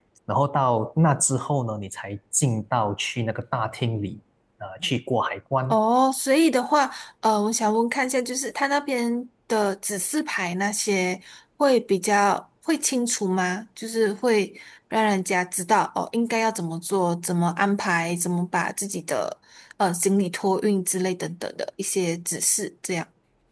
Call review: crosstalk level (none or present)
none